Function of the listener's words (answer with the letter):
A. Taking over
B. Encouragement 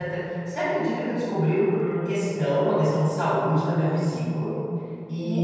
B